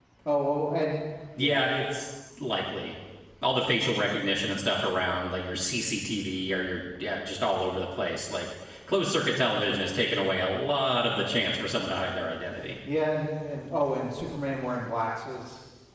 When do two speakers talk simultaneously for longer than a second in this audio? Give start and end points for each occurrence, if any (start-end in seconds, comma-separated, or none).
none